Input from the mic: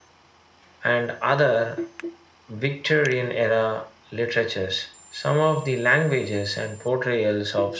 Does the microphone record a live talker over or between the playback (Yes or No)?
No